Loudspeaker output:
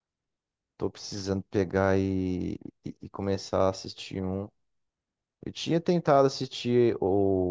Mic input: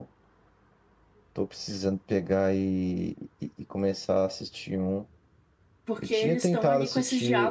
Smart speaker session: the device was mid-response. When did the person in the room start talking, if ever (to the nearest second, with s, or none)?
6 s